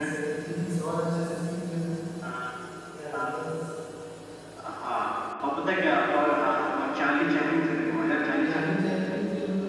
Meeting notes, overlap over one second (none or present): none